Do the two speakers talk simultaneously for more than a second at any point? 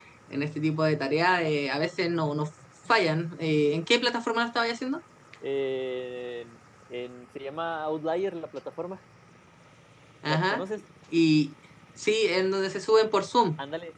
No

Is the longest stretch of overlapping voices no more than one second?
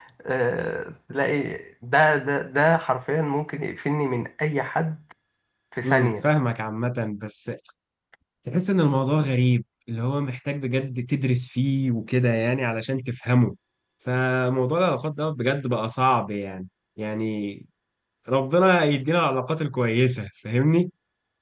Yes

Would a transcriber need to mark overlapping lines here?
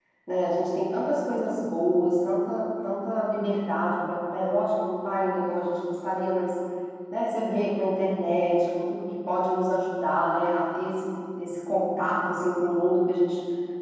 No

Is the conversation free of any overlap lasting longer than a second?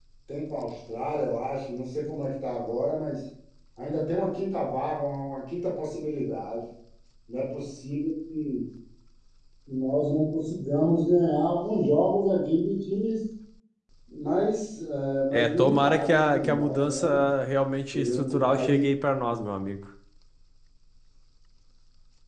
No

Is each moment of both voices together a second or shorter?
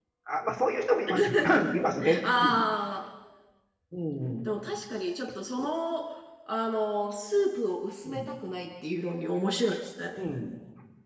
Yes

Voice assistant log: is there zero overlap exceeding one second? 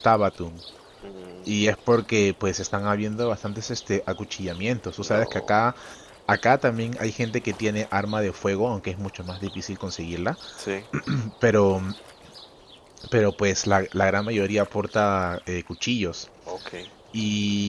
Yes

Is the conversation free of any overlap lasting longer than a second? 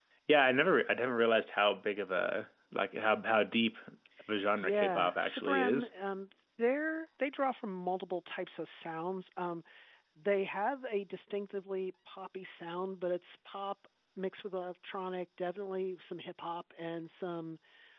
No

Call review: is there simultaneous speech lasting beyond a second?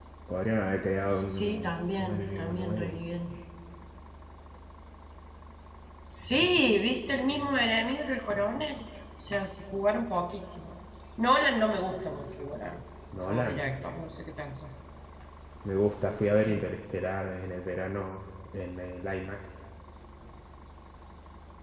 Yes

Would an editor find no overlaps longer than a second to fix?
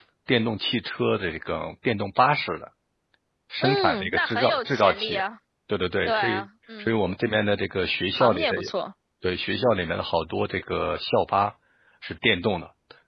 No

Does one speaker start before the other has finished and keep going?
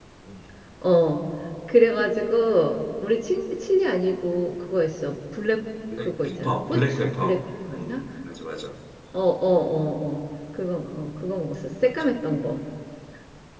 Yes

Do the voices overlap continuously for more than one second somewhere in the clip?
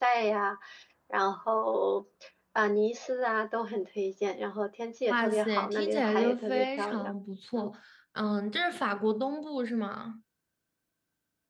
Yes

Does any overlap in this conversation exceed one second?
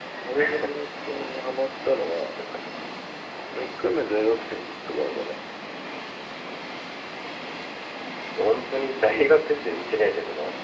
No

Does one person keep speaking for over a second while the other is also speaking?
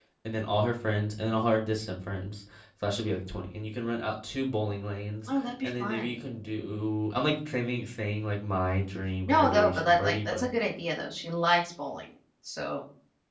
Yes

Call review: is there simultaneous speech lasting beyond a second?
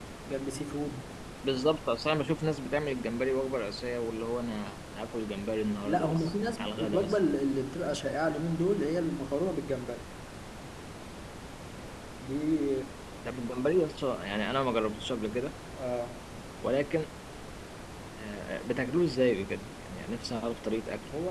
Yes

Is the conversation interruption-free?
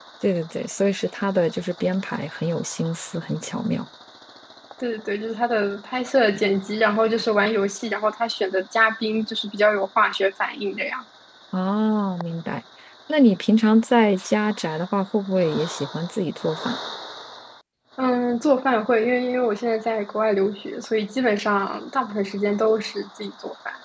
Yes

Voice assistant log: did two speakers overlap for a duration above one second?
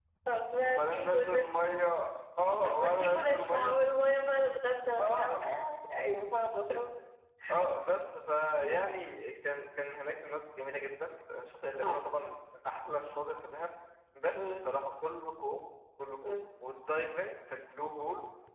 Yes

